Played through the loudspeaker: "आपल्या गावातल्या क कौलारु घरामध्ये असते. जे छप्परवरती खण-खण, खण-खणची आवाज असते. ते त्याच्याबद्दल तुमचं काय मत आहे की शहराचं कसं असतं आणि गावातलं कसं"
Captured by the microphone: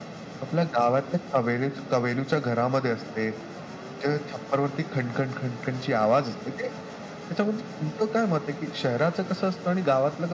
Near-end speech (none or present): none